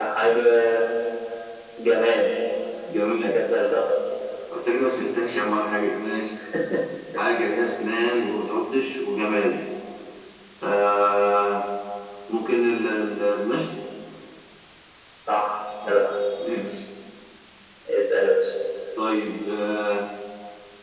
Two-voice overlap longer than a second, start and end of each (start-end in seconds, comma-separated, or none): none